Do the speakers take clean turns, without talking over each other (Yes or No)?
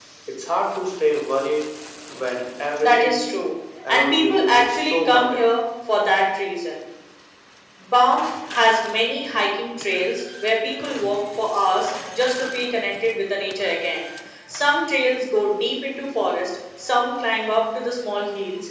No